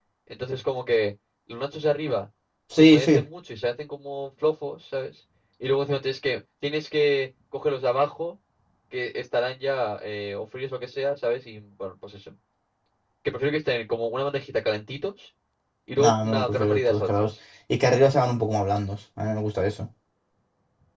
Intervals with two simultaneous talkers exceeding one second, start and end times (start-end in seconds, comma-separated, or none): 16.0-17.3